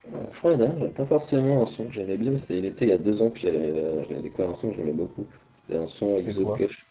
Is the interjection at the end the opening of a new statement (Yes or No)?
No